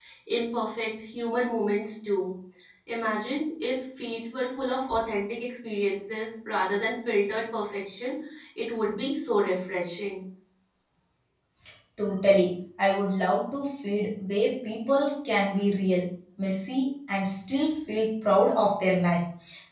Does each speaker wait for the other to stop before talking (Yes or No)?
Yes